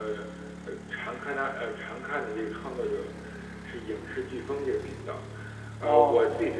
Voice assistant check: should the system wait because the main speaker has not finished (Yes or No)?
Yes